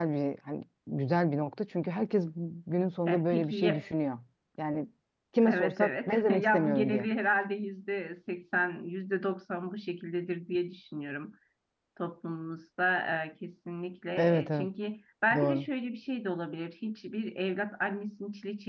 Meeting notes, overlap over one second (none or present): present